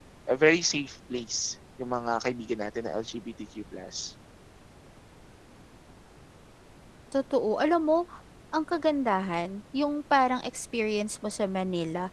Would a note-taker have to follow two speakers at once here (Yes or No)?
No